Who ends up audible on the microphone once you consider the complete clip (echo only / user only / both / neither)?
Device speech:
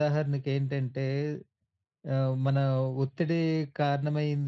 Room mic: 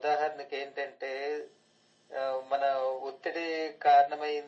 echo only